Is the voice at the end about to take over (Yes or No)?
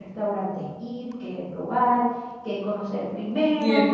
Yes